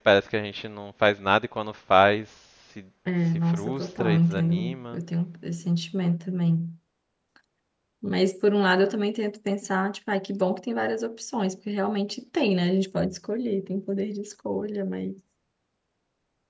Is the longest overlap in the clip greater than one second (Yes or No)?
Yes